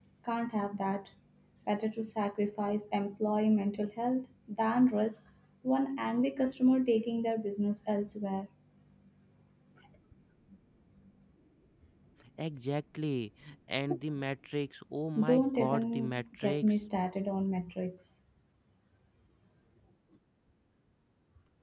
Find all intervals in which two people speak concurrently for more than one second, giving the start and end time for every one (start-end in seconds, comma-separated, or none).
15.2-16.7